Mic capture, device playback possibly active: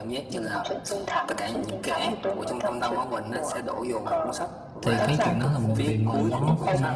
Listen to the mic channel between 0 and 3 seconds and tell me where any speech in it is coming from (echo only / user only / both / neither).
echo only